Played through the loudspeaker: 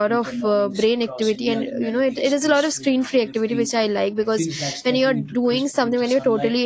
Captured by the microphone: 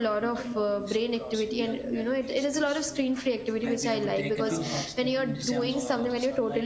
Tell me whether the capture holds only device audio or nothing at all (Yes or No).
No